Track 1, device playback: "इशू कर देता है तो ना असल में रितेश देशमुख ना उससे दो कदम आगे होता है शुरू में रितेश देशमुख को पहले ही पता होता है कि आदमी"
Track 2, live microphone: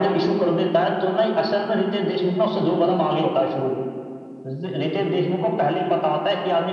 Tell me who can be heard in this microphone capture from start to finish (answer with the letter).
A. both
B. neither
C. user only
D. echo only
D